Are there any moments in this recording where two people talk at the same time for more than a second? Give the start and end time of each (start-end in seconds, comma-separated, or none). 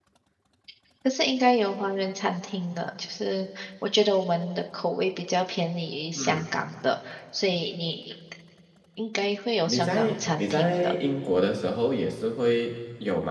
9.7-10.9